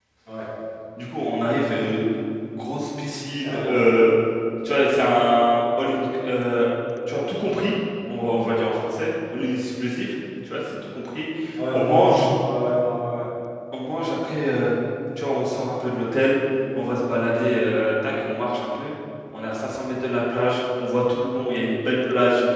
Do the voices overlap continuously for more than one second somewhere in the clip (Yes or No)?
No